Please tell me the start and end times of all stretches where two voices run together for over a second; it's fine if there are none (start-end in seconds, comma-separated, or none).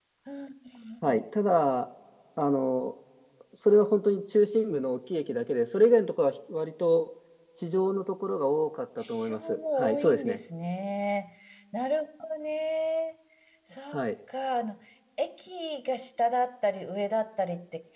9.1-10.4